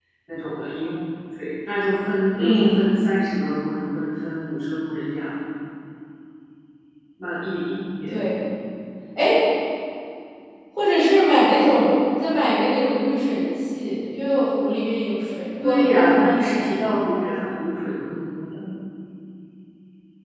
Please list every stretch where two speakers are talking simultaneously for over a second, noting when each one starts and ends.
15.6-16.9

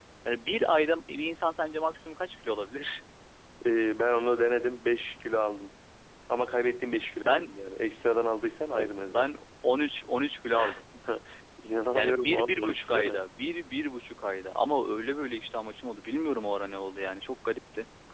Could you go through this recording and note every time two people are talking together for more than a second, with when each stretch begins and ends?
11.9-13.2

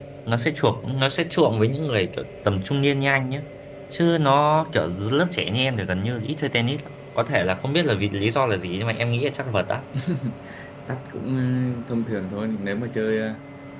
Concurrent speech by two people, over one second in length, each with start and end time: none

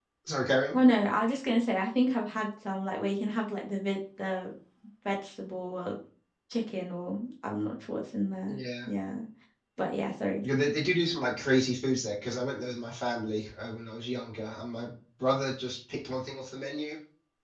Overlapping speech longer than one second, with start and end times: none

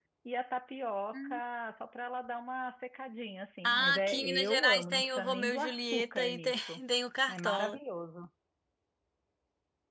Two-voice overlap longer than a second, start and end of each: 3.6-6.8

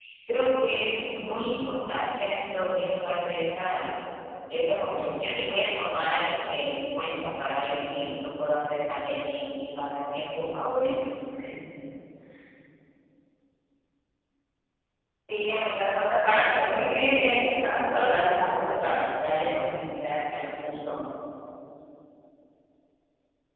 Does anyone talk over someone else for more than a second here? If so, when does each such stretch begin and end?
16.2-18.8

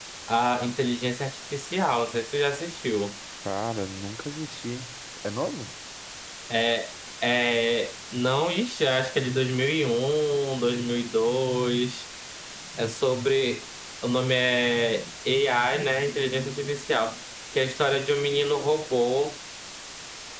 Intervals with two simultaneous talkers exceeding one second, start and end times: none

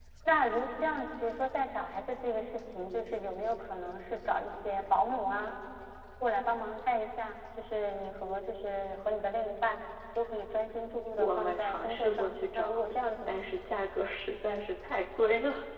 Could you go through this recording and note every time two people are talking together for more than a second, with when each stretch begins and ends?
11.2-12.9

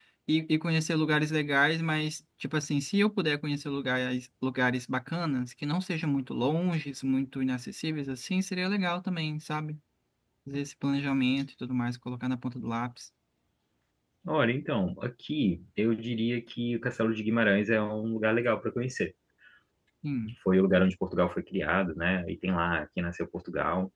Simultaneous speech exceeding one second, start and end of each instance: none

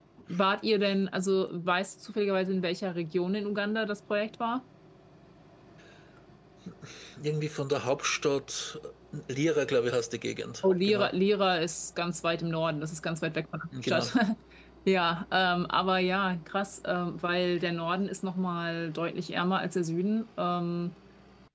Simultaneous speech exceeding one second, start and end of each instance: none

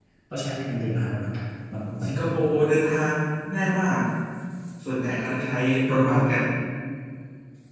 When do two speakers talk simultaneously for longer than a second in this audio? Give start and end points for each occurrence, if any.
none

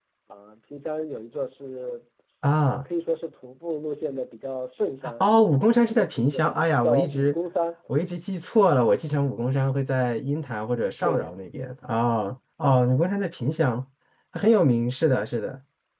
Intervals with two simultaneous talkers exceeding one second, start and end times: 5.9-7.4

